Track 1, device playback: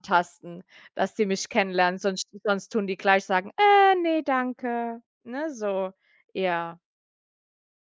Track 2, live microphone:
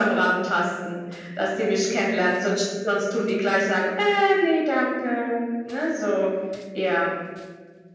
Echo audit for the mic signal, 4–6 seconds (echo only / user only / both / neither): echo only